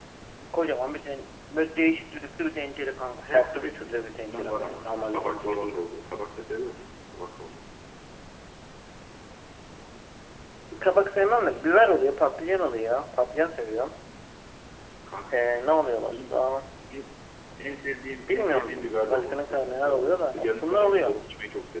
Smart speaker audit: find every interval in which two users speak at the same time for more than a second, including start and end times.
3.2-5.8, 18.3-21.2

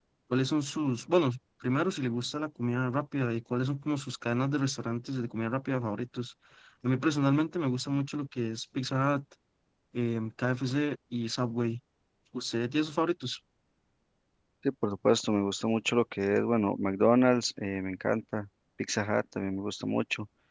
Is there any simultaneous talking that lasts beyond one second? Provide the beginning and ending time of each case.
none

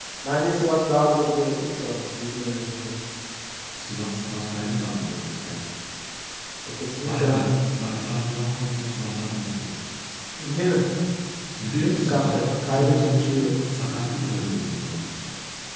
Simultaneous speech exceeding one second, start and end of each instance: 11.8-13.5

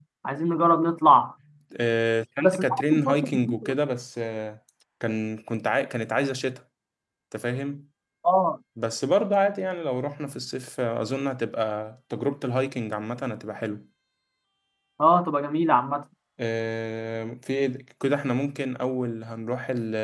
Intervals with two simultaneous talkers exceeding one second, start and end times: 2.4-3.8

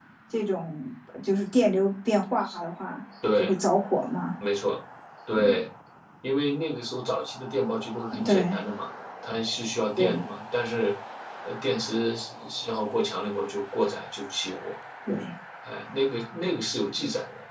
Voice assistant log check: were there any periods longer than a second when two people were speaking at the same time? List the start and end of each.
none

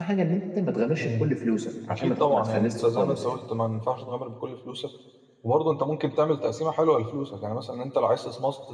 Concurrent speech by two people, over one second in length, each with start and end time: 1.9-3.4

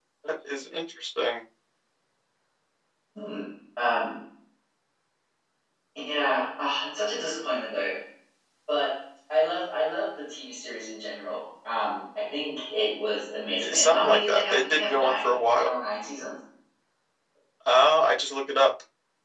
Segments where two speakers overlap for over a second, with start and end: 13.6-15.8

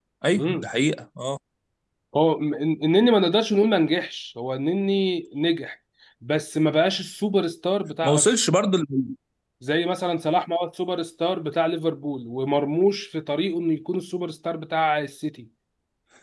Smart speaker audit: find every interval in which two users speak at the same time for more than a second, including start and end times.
none

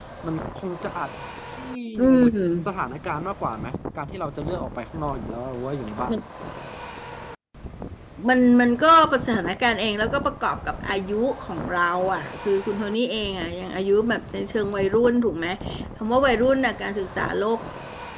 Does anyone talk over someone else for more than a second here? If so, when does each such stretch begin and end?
none

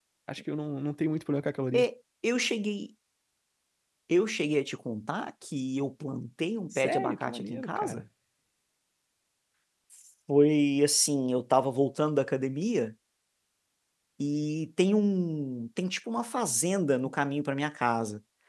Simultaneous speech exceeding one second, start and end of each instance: 6.7-8.0

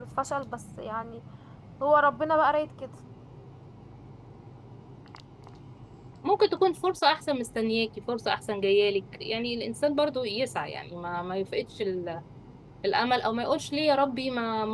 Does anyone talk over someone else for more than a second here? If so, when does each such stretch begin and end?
none

